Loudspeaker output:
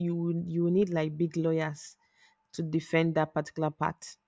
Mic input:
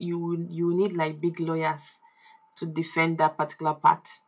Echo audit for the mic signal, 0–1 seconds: echo only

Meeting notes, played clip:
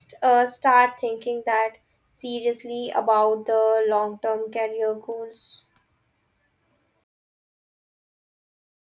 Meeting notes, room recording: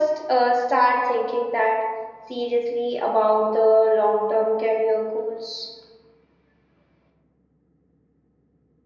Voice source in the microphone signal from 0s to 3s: echo only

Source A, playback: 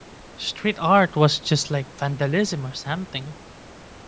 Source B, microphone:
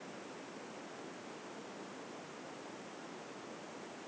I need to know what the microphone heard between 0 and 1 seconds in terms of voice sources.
neither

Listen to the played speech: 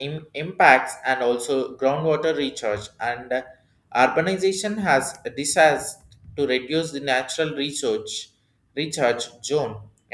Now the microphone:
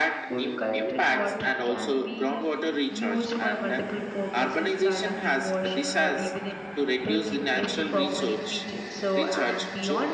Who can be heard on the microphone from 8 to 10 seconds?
both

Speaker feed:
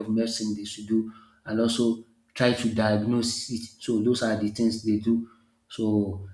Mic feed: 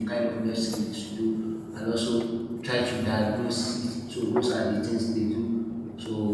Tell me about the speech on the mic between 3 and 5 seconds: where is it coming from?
echo only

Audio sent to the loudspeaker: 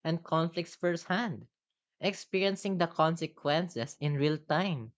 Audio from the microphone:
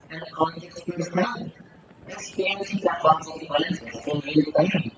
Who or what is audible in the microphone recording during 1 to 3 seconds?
echo only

